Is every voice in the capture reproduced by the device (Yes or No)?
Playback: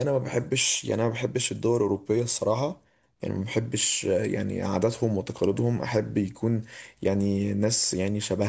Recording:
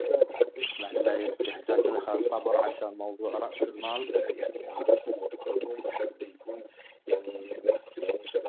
No